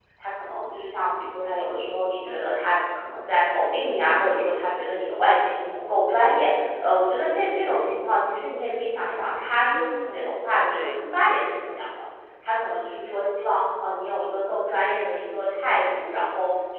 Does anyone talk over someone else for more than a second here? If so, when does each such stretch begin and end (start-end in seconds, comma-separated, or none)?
9.7-11.1